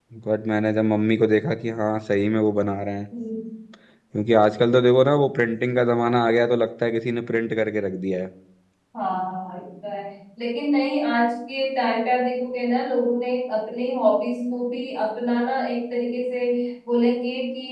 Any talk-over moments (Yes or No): No